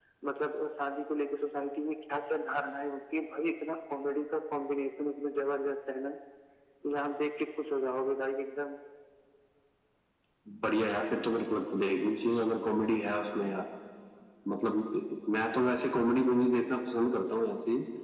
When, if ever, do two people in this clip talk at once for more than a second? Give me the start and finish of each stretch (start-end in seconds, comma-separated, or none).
none